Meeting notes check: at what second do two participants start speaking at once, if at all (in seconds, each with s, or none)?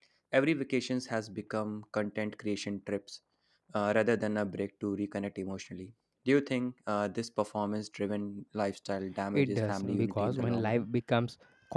9.3 s